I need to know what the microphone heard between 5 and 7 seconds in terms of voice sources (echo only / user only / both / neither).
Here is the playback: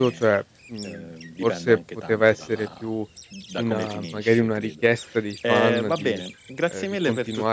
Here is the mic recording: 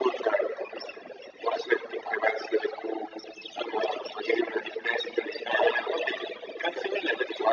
echo only